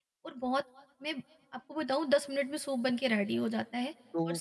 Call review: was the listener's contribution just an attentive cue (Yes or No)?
No